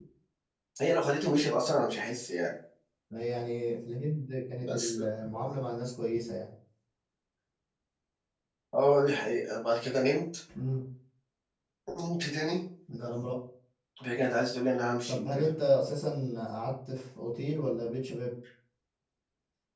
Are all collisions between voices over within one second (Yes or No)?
Yes